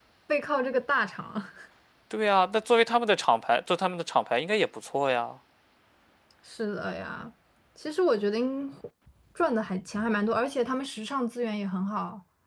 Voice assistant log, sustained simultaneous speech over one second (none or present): none